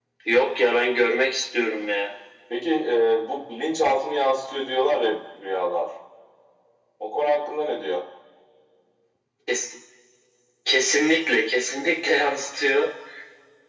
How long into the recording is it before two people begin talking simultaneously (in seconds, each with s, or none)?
none